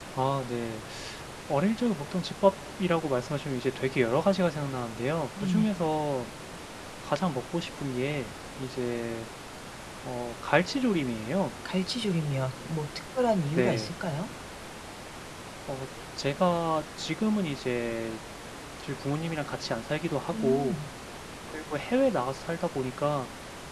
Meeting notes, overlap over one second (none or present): none